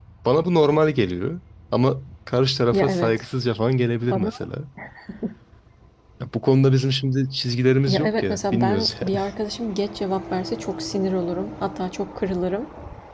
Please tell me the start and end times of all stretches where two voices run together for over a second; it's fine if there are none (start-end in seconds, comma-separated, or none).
7.9-9.2